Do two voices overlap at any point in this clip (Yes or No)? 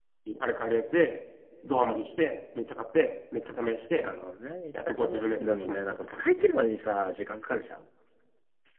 Yes